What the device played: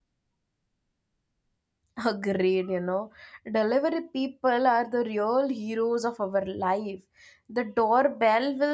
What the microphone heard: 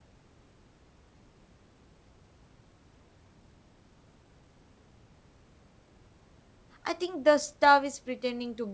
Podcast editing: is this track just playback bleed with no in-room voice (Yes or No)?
No